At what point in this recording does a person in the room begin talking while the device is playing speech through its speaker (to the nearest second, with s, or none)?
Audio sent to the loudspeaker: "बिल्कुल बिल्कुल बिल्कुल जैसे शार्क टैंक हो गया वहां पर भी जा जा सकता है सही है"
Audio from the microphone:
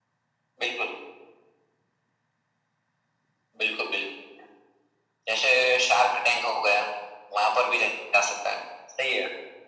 none